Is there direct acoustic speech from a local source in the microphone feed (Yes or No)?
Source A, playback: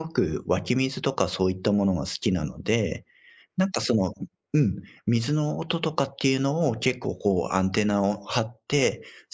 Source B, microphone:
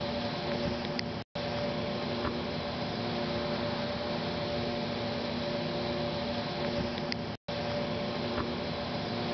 No